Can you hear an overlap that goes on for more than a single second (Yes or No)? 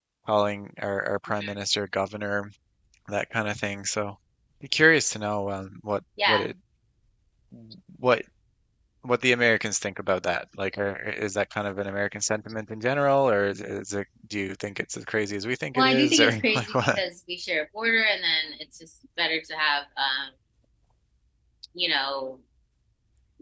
Yes